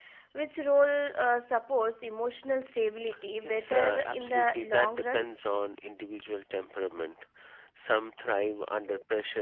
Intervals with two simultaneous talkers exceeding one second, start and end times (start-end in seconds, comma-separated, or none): 3.4-5.3